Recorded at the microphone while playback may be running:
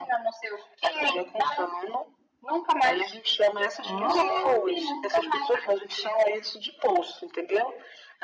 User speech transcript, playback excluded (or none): Oh,